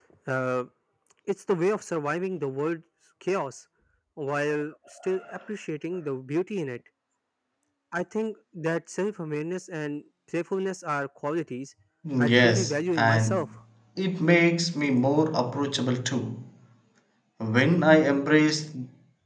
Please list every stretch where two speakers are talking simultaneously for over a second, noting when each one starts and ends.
12.2-13.5

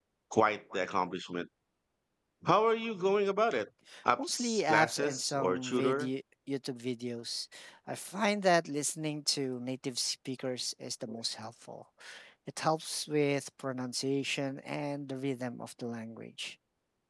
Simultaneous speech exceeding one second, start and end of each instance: 4.2-6.1

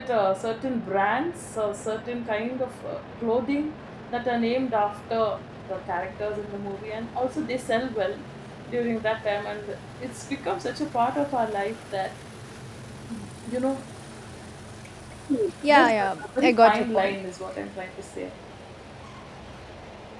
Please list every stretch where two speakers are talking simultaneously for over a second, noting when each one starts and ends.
15.7-17.2

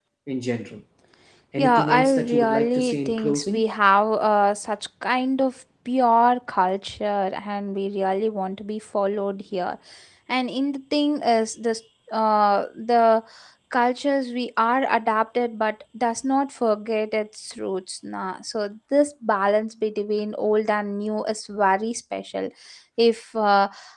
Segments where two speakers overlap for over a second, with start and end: 1.6-3.6

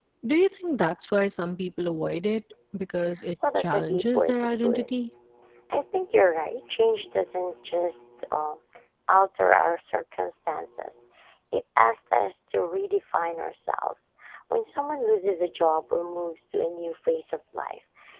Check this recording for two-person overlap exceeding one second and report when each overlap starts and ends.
3.6-4.9

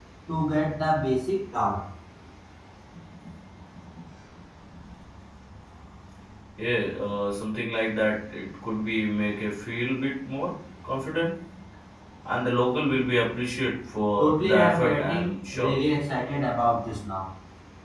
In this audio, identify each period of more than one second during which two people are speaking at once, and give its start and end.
14.2-15.8

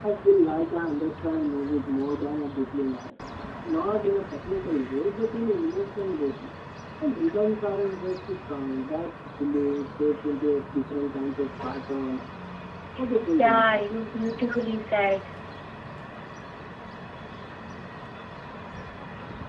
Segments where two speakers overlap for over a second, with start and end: none

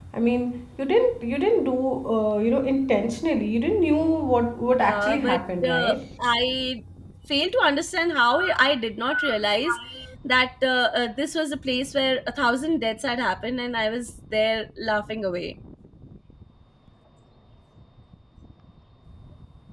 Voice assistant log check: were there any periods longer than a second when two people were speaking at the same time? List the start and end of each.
4.8-6.0

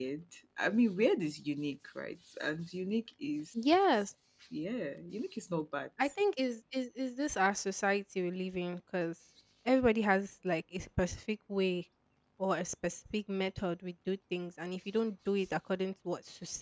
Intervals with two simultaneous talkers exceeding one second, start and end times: none

